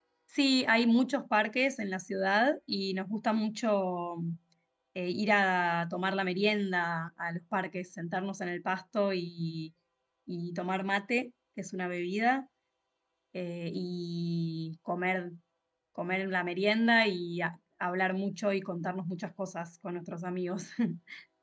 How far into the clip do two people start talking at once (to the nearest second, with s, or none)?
none